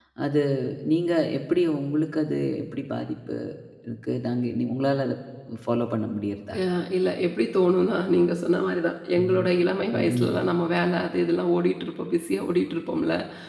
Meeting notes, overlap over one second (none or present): none